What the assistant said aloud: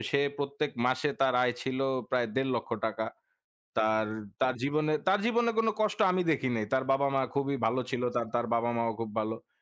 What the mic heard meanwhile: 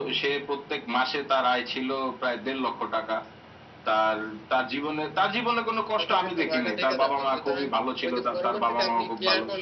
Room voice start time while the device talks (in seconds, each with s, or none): 6.0 s